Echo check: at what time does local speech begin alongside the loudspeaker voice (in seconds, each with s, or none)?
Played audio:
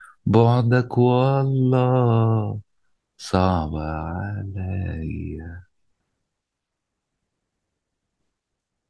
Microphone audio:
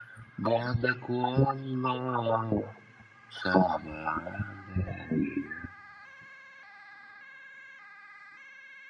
none